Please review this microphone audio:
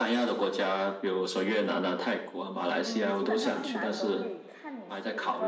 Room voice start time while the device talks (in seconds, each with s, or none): 2.8 s